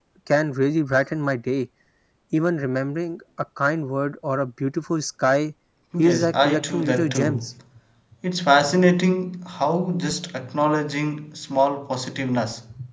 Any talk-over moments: Yes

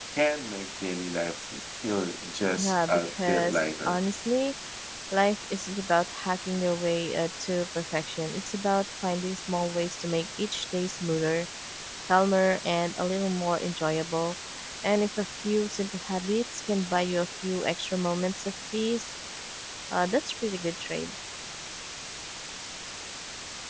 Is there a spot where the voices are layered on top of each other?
Yes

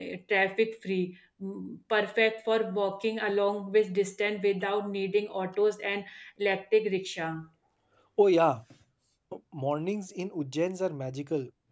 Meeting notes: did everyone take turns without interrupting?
Yes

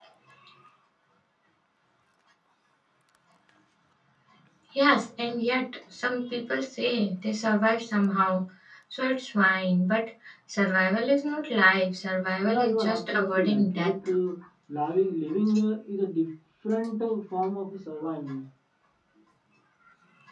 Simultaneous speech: Yes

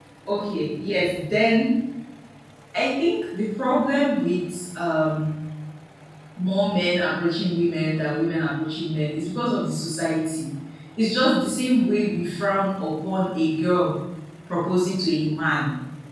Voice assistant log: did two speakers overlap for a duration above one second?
No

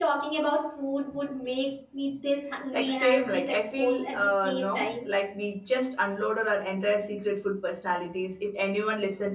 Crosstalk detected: Yes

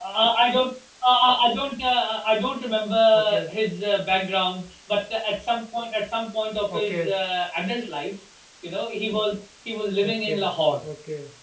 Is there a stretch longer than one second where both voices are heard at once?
No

